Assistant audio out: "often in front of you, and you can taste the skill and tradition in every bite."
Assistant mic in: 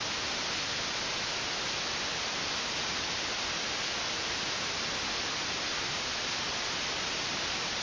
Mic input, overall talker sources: neither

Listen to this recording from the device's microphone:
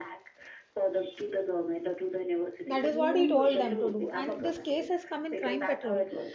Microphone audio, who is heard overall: both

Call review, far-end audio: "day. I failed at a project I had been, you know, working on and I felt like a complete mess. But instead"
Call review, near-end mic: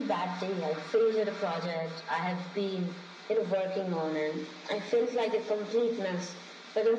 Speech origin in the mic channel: echo only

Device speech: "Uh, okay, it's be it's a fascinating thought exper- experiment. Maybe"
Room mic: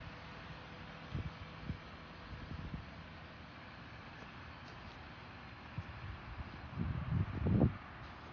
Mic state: neither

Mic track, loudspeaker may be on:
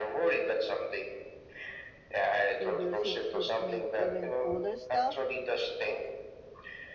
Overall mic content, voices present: both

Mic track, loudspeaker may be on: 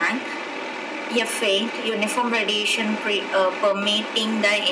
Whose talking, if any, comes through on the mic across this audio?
echo only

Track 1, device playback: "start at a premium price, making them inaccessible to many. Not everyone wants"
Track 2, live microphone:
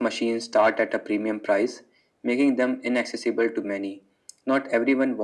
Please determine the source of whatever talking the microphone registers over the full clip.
echo only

